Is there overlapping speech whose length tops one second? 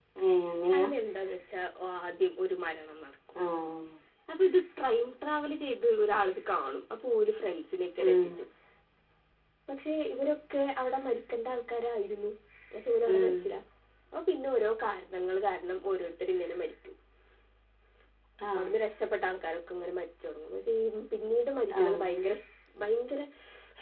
No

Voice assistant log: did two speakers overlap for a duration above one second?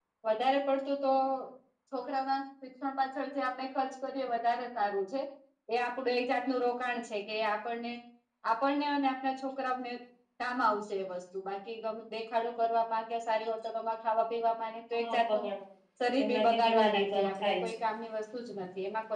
Yes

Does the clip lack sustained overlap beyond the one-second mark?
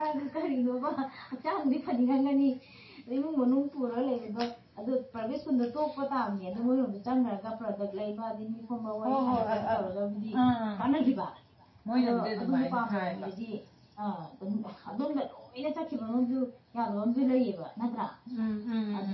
No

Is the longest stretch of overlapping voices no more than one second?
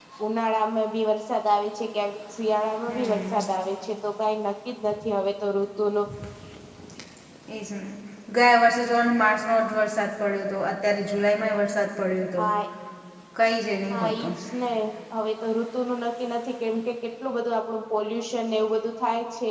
Yes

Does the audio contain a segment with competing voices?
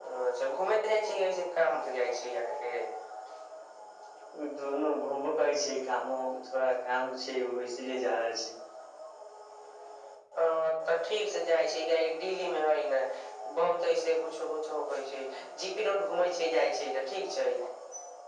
No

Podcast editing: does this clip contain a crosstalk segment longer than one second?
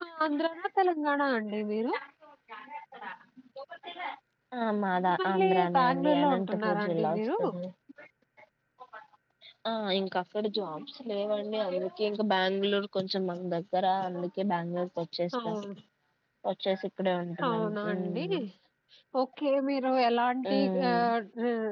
Yes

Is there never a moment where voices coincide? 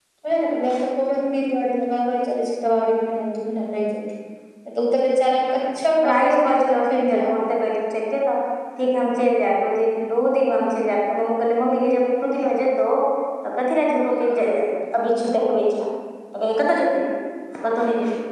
No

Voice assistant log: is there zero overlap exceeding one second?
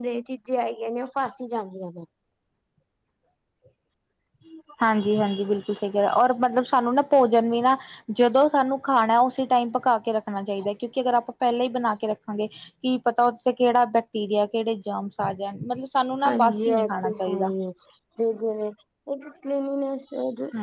No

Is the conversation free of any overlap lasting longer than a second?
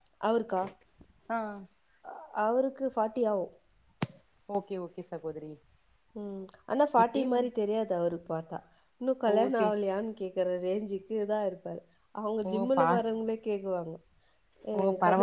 Yes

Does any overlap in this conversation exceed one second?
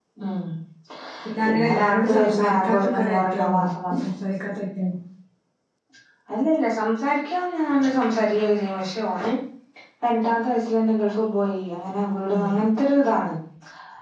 Yes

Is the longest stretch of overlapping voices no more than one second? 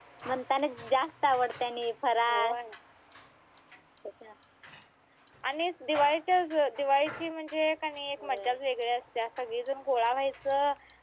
Yes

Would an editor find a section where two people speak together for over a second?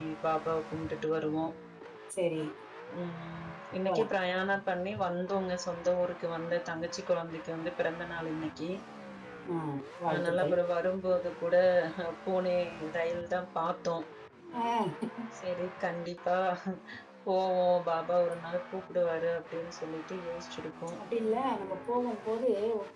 No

